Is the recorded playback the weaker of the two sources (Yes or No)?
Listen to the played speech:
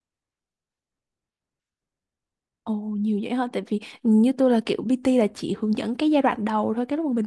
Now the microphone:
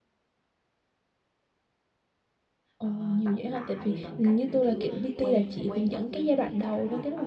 No